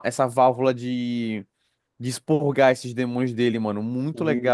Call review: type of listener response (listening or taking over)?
listening